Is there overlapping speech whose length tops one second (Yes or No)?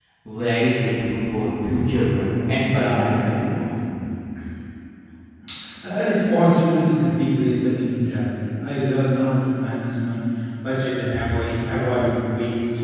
Yes